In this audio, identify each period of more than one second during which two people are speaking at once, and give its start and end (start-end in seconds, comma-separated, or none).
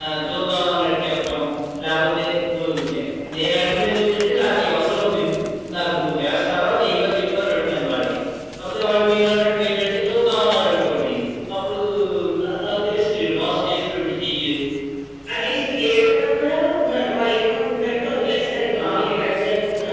none